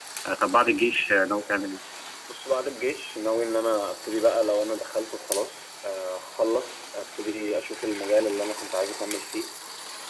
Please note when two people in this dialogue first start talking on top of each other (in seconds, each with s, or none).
none